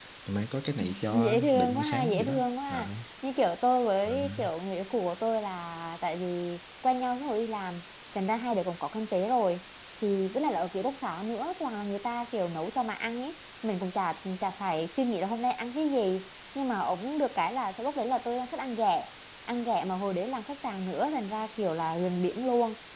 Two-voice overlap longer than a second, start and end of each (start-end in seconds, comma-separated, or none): 1.1-2.9